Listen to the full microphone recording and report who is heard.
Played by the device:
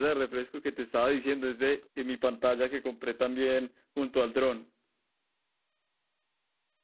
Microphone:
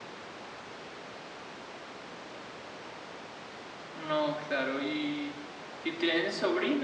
user only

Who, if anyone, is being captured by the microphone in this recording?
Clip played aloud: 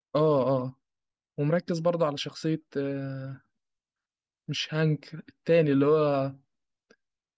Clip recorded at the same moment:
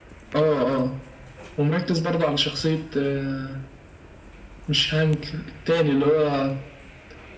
echo only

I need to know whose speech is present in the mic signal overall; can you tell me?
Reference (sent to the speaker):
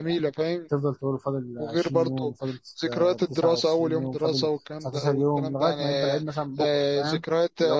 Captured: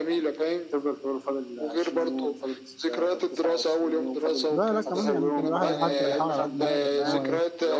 both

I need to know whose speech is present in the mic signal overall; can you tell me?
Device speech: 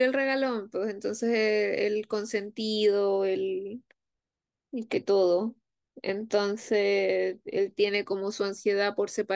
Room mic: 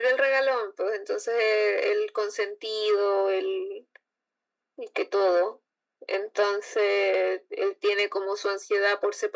echo only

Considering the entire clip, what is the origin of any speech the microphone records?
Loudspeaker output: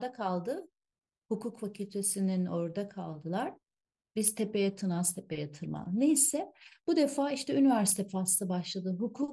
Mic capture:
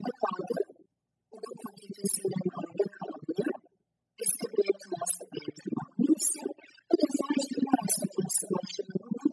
echo only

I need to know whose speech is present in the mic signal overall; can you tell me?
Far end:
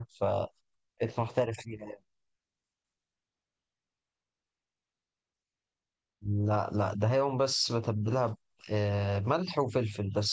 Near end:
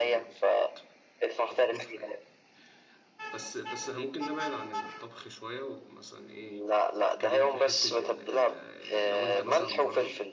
both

